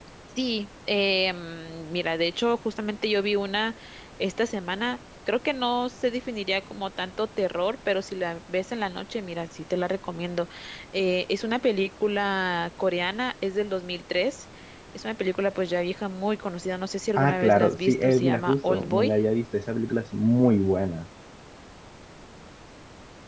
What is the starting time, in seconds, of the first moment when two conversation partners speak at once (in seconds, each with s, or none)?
17.1 s